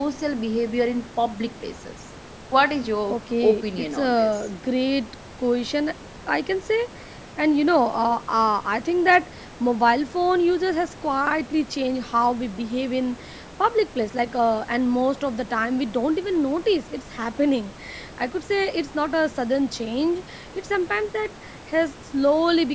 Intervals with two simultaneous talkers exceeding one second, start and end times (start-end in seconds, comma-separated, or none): 3.1-4.5